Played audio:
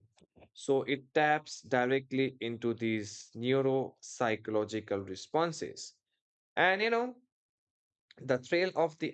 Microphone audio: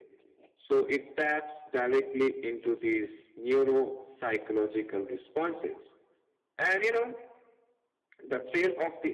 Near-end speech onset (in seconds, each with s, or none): none